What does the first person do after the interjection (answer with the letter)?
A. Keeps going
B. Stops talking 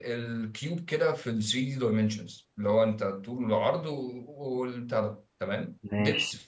A